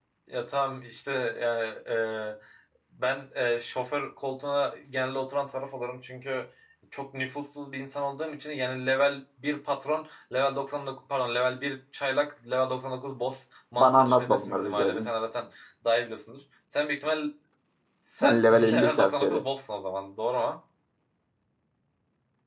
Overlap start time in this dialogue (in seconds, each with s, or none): 13.8 s